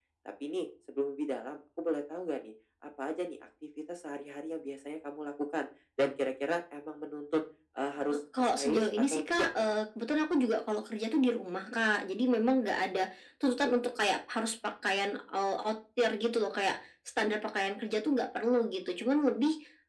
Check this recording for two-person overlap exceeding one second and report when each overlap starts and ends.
8.1-9.5

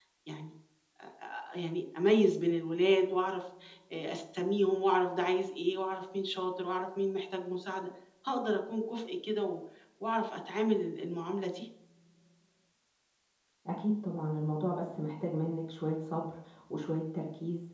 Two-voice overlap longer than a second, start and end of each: none

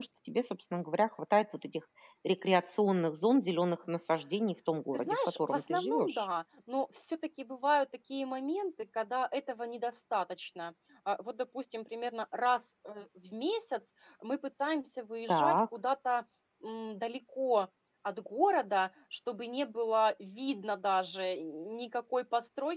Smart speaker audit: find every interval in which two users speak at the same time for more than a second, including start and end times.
4.9-6.3

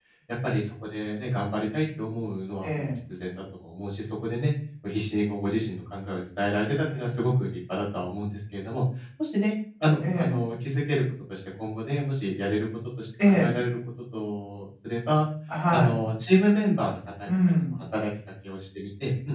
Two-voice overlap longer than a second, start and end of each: none

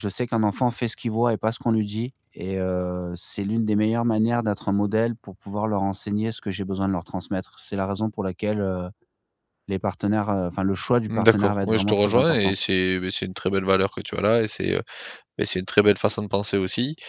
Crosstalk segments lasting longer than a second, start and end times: 11.1-12.5

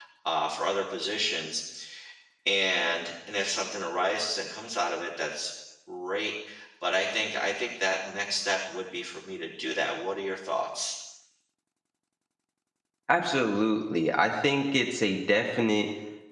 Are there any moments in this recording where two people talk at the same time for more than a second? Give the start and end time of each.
none

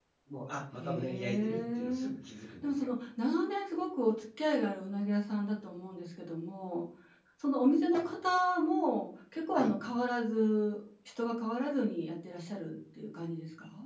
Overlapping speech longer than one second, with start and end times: 0.8-2.1

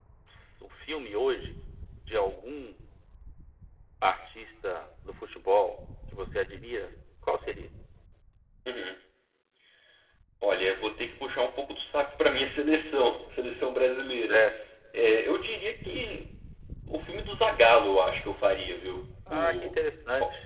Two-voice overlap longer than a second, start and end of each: none

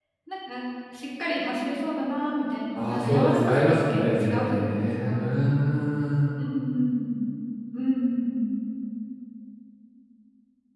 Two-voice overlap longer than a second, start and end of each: 2.8-5.1

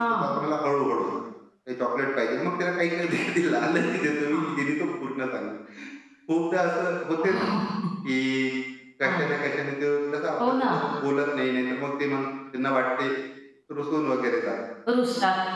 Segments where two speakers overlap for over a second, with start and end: none

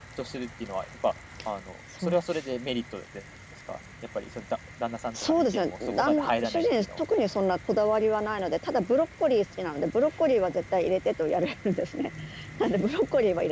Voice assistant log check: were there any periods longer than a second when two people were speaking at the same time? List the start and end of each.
5.2-7.0

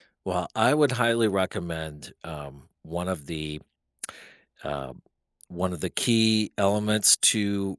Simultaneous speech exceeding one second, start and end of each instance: none

